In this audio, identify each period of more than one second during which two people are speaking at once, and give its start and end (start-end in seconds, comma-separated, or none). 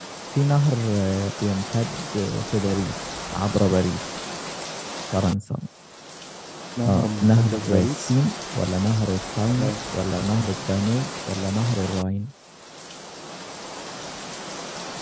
6.9-8.1